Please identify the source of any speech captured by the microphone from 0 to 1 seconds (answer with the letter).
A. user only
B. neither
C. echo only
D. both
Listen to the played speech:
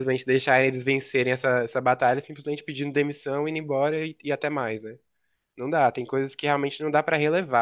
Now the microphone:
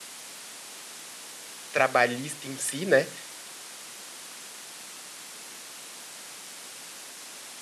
B